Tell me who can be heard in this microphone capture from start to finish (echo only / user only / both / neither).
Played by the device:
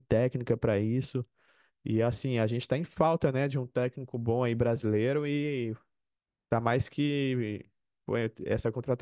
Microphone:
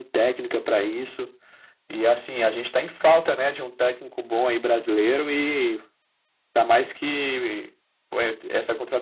echo only